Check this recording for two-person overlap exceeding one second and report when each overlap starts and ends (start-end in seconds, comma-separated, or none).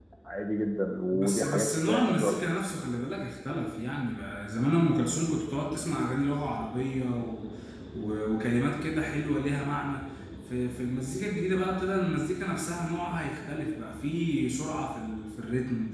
1.1-2.4